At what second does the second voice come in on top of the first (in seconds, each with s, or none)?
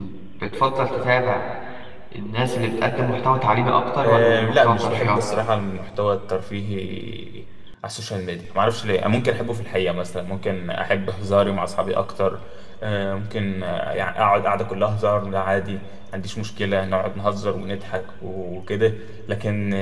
4.0 s